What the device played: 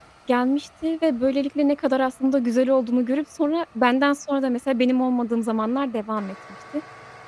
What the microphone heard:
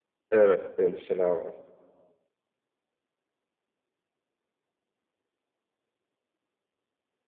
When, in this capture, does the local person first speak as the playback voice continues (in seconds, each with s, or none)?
0.3 s